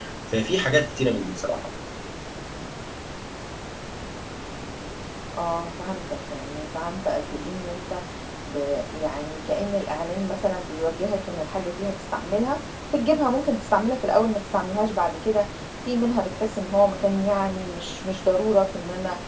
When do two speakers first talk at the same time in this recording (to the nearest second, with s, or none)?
none